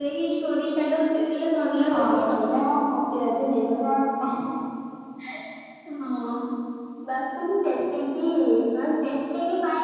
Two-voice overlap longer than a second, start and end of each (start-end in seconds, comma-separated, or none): none